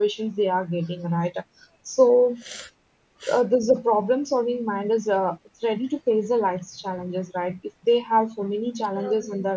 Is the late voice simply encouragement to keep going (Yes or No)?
Yes